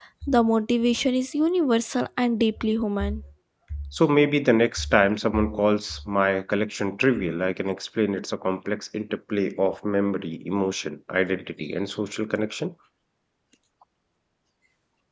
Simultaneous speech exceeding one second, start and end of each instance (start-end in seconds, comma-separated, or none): none